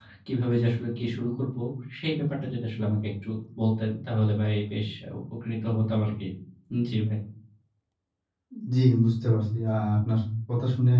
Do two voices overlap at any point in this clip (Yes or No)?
No